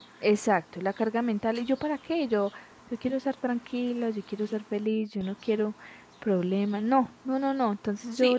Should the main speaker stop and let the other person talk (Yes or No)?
Yes